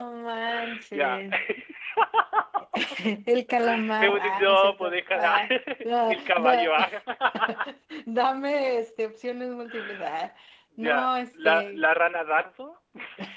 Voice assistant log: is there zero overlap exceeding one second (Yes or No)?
No